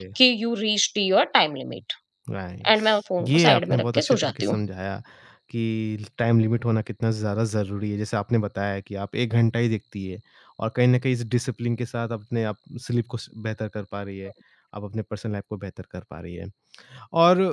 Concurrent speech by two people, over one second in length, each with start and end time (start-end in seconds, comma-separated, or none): 3.3-4.6